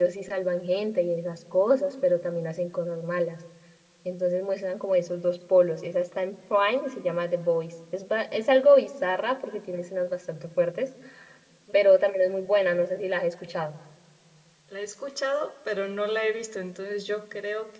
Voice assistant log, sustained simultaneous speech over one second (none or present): none